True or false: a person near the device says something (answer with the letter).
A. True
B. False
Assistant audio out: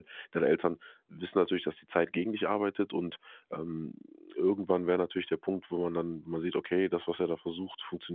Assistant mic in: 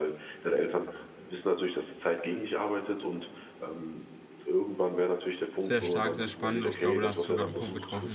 A